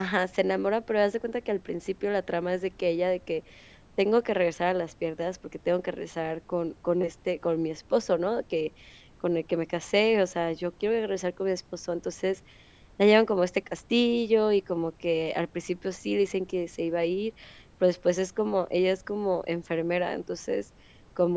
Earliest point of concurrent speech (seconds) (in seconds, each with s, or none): none